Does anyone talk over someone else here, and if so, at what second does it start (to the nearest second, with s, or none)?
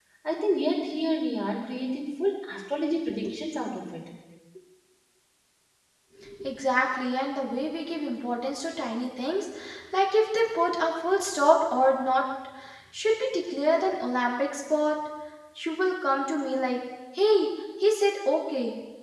none